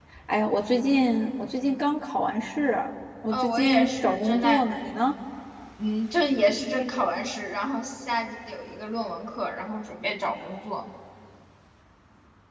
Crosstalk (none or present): present